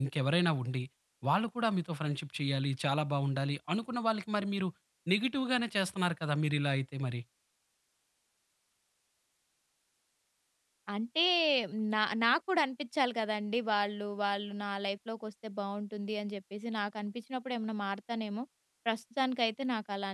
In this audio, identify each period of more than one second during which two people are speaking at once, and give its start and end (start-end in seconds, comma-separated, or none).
none